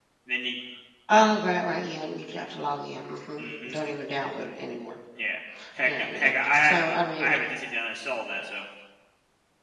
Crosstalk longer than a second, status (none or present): present